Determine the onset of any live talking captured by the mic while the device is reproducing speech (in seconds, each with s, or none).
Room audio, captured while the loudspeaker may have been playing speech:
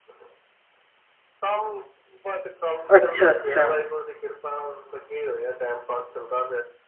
3.0 s